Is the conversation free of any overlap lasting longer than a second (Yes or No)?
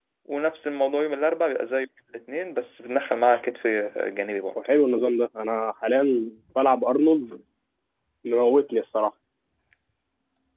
Yes